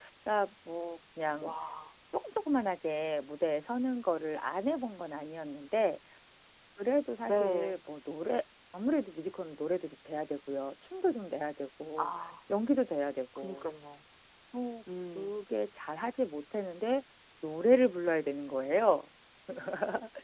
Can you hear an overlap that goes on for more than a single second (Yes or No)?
No